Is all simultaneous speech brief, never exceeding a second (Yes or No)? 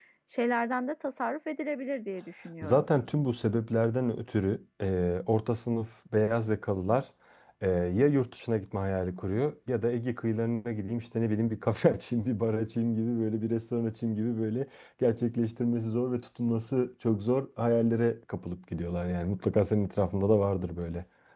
Yes